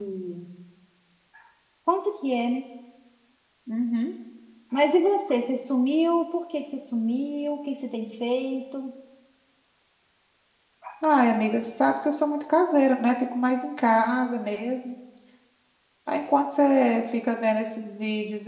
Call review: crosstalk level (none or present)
none